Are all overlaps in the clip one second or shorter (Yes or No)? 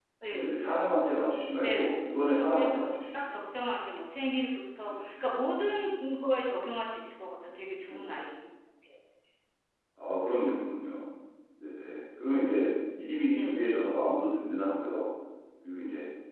No